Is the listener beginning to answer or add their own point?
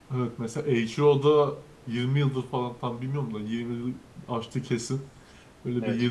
No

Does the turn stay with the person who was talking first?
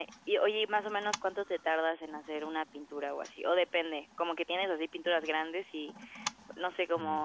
Yes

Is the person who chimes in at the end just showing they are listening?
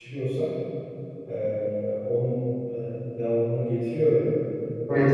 No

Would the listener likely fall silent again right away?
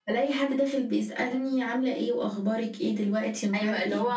No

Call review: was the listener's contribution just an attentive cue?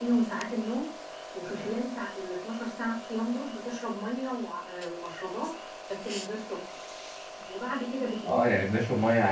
No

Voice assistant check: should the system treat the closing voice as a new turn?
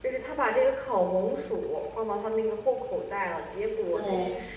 No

